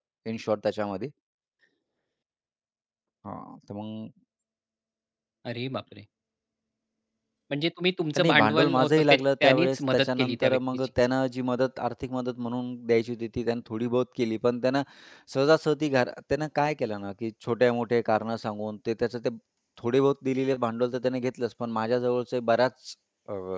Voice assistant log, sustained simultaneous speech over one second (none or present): present